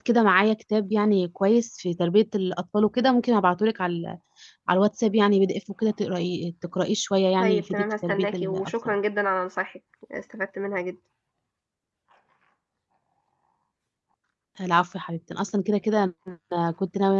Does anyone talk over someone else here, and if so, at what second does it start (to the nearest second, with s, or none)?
7 s